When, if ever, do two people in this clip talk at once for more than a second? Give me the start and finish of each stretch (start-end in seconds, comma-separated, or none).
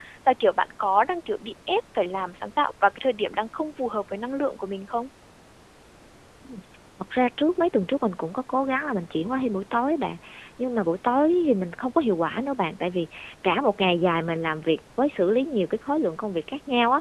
none